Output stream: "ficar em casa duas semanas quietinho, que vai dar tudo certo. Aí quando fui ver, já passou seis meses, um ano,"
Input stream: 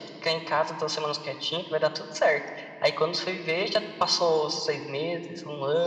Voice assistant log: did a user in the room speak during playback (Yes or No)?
No